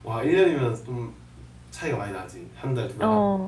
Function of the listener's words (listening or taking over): taking over